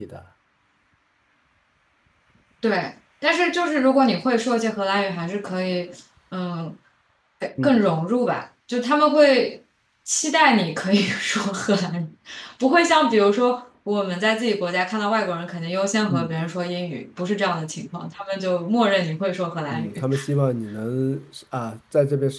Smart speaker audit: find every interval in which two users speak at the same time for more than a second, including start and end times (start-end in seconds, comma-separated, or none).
none